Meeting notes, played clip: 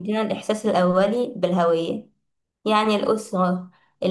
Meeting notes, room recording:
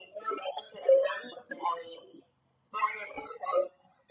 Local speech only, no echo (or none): none